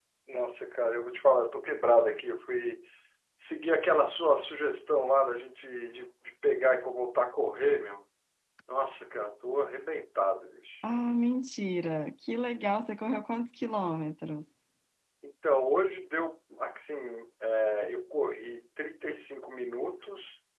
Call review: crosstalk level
none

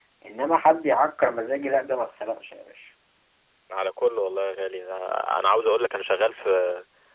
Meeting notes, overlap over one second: none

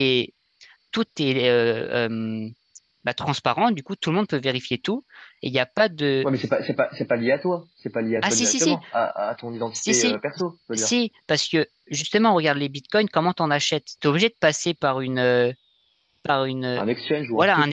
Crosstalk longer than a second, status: none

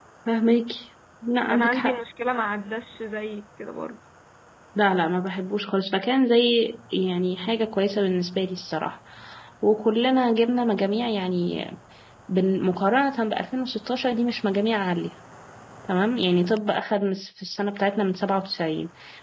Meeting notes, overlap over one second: none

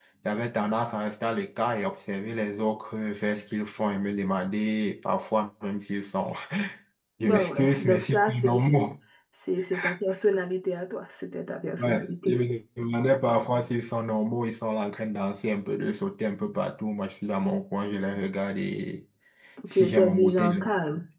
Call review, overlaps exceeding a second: present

